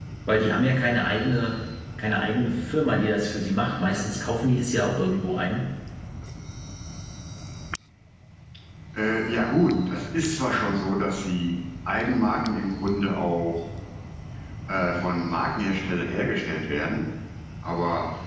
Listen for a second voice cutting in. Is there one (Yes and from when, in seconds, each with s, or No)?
No